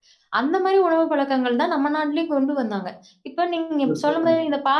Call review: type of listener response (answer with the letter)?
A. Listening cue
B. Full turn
A